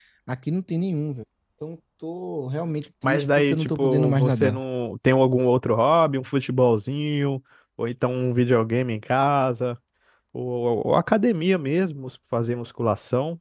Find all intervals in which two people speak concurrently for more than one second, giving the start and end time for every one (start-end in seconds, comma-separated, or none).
3.0-4.6